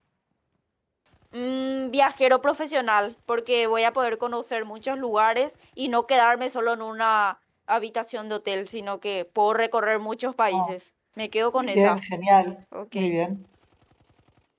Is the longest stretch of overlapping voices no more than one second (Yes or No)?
Yes